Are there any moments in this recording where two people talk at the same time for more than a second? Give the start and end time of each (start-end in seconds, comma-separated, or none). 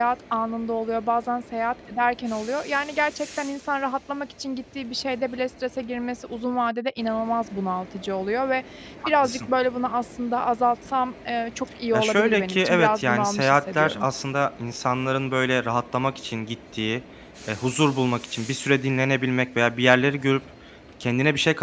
11.9-14.1